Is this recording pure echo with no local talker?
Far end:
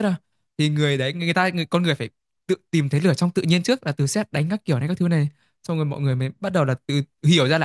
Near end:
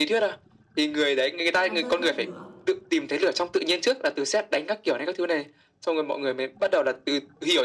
No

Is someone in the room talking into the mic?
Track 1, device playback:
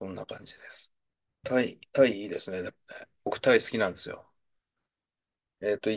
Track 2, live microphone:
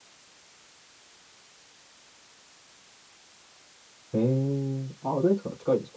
Yes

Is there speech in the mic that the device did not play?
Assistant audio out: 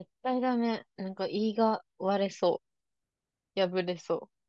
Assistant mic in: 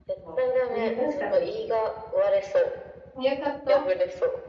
Yes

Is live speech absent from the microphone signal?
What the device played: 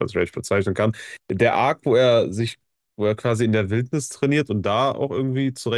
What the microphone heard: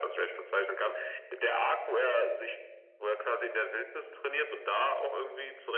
Yes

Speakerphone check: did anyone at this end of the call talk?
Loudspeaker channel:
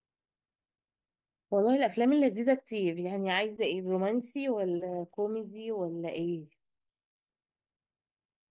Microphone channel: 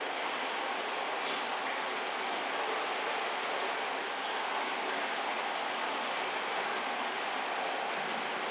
No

